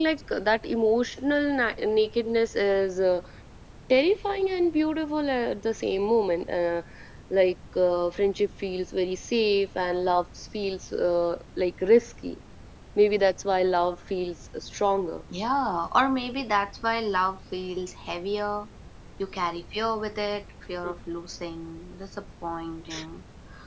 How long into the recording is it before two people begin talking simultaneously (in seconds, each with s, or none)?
none